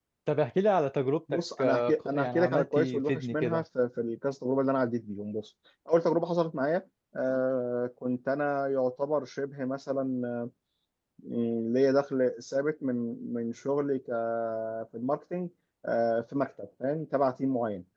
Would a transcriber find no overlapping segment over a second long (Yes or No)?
No